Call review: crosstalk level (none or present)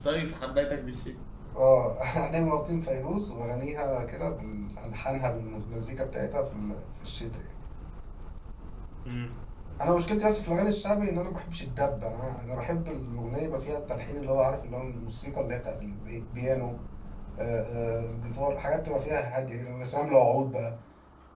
none